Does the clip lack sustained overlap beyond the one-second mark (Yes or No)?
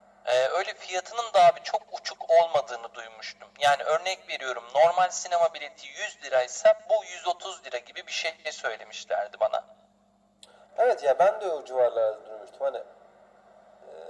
Yes